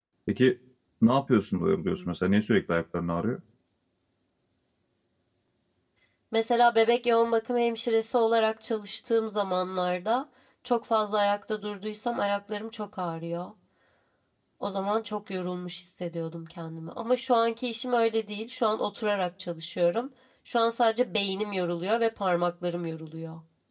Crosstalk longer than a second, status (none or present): none